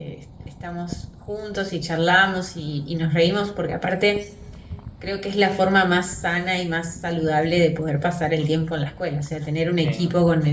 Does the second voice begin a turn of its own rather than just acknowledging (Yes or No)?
No